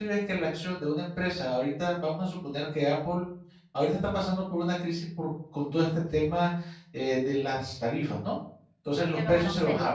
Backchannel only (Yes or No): Yes